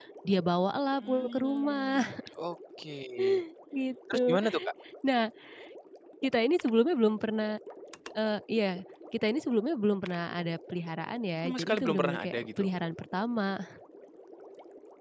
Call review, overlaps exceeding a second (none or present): present